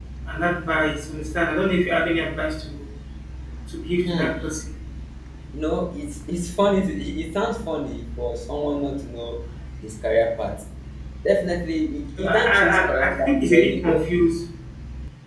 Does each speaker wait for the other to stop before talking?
No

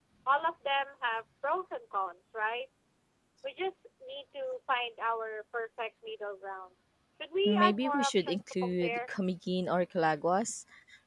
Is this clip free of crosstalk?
No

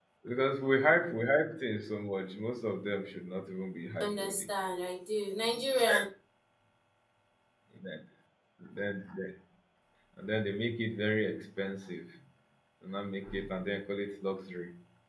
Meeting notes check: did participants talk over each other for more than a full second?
No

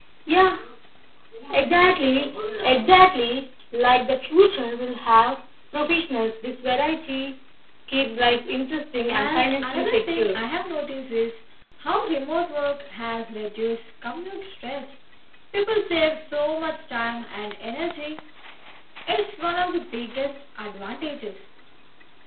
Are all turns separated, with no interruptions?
No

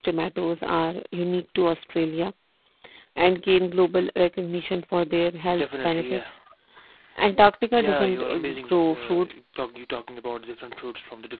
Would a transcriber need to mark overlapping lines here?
Yes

